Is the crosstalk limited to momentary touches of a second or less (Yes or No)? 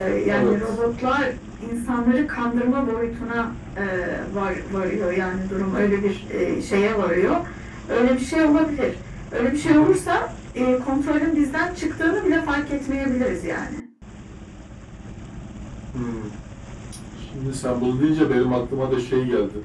Yes